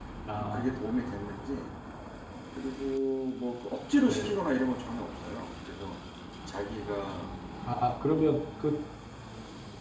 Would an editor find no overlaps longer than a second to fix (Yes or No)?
Yes